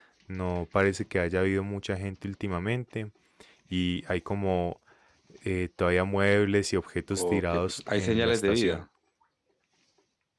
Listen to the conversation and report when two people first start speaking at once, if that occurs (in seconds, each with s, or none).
7.1 s